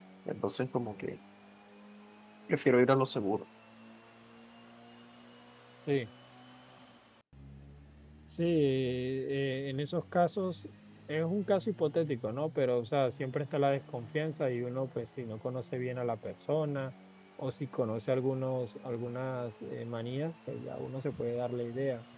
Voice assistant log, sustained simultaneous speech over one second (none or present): none